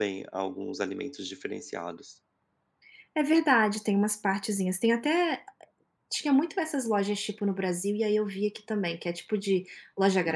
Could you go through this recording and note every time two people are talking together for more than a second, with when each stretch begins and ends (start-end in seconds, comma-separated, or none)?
none